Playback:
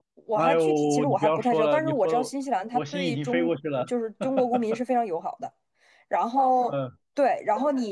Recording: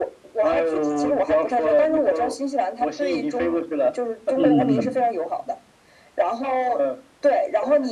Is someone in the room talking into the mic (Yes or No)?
Yes